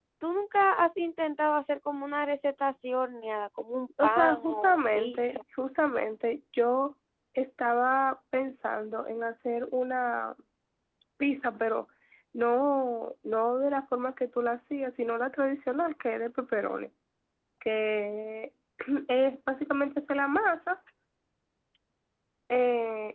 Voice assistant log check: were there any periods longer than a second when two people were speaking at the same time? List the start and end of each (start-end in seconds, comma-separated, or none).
4.0-5.4